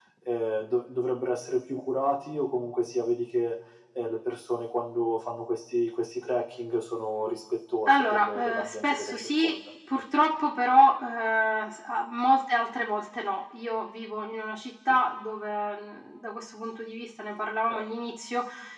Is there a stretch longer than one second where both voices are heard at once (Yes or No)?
Yes